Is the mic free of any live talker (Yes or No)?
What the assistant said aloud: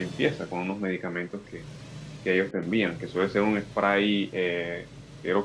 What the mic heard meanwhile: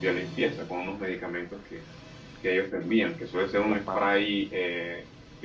No